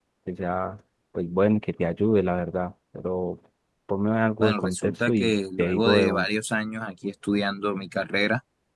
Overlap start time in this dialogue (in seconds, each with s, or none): 4.4 s